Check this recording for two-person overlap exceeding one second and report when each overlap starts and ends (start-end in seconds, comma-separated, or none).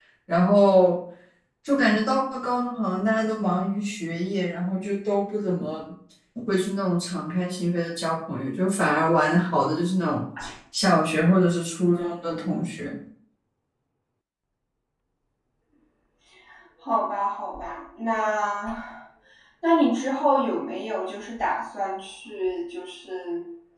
none